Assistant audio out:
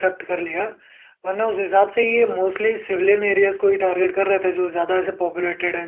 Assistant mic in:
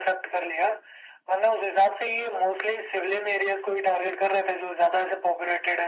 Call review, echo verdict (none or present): present